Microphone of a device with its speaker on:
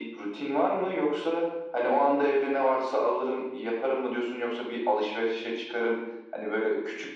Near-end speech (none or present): none